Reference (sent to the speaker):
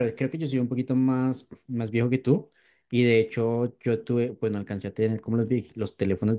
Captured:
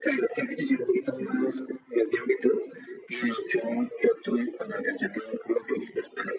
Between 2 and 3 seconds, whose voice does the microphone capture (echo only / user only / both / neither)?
echo only